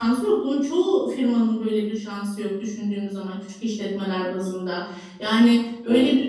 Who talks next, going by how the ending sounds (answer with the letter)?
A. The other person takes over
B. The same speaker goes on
B